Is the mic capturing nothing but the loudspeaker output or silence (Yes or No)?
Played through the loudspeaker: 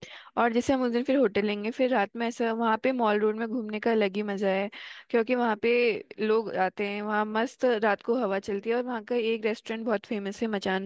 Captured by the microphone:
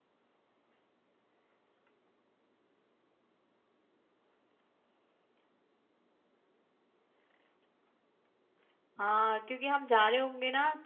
No